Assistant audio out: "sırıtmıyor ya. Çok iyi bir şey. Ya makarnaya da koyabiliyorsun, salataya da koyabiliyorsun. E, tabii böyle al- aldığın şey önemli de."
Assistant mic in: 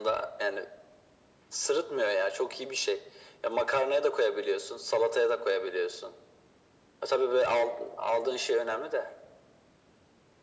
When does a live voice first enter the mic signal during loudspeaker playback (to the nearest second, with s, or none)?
none